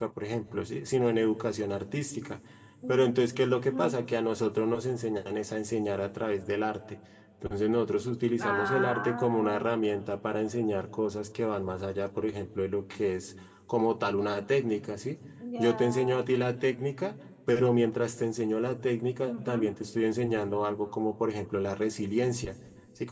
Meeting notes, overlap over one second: present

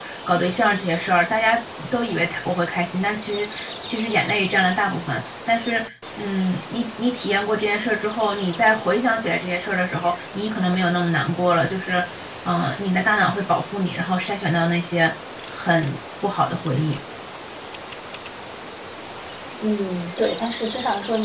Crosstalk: none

